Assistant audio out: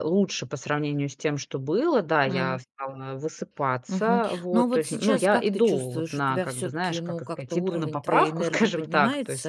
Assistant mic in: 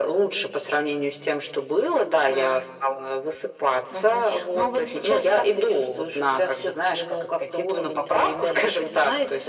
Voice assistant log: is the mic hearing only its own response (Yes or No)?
Yes